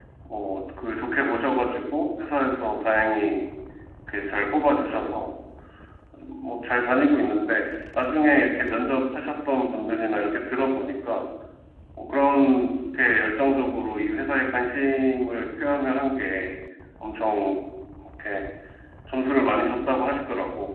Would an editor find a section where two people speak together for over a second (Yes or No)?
No